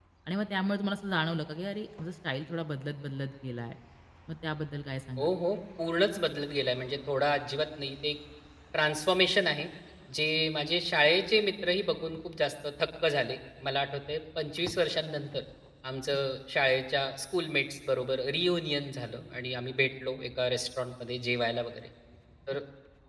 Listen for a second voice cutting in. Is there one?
No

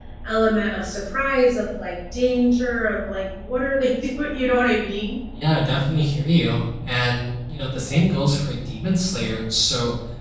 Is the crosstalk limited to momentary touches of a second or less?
Yes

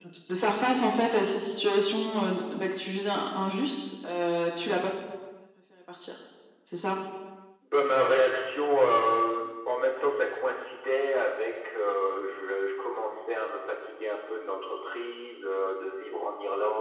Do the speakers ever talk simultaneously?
No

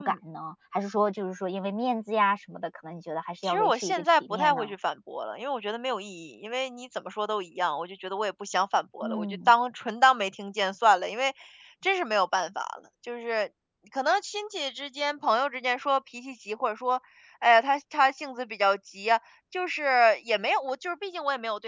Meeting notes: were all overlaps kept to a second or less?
No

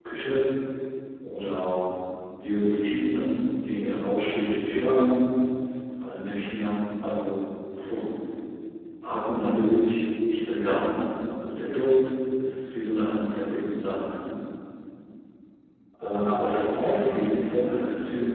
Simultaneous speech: Yes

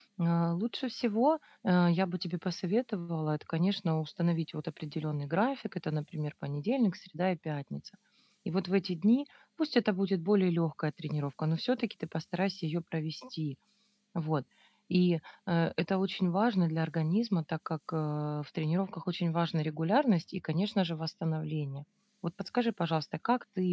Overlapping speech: No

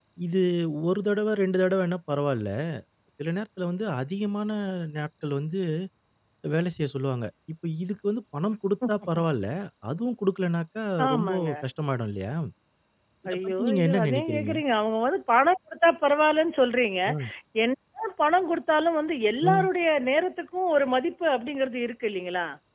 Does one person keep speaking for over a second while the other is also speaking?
Yes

